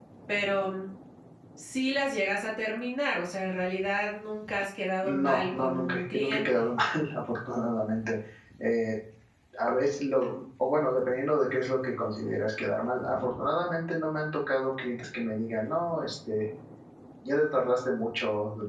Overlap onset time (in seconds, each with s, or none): 5.0 s